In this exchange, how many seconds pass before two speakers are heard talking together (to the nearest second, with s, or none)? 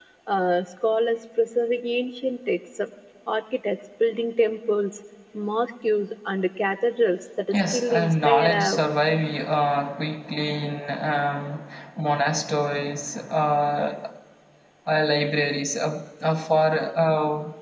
8 s